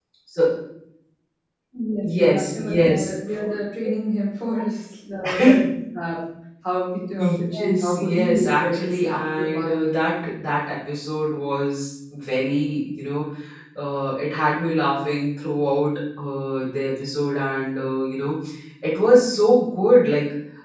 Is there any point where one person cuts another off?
Yes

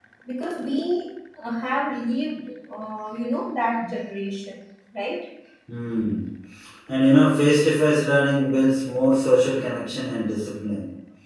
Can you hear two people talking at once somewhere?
No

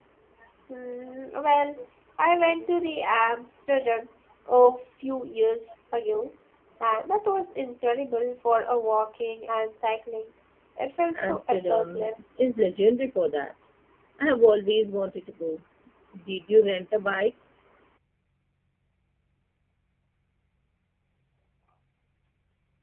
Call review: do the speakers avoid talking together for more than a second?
No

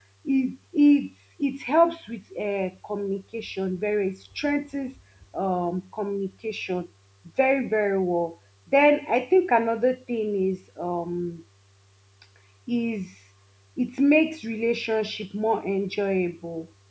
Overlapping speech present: No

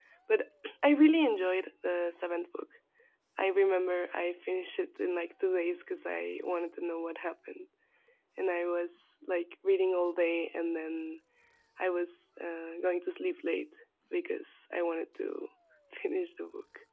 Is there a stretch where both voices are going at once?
No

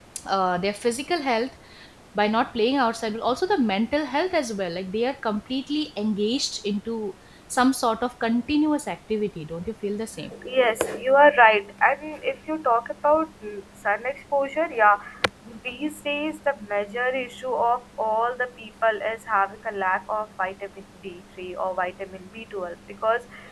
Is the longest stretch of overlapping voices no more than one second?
Yes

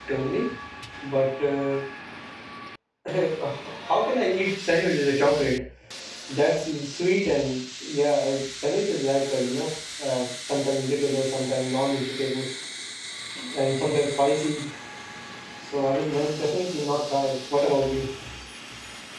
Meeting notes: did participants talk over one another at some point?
No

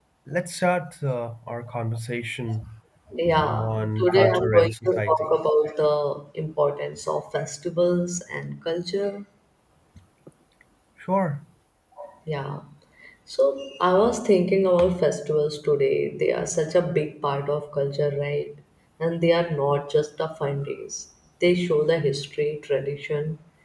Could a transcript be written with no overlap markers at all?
No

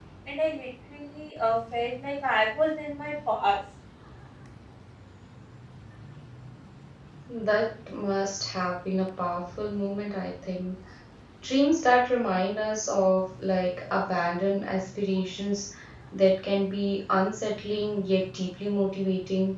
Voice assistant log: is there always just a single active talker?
Yes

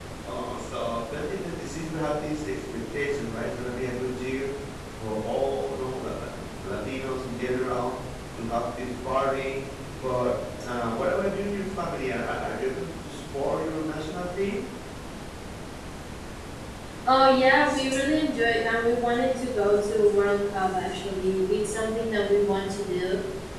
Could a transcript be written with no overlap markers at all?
Yes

